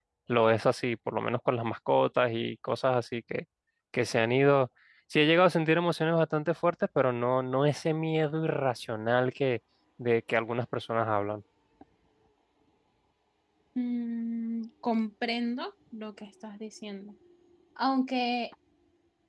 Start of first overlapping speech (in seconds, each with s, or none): none